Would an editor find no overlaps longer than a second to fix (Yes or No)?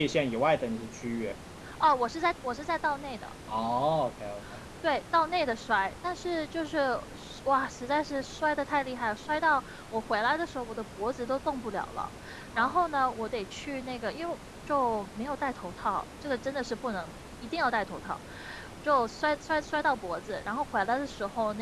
Yes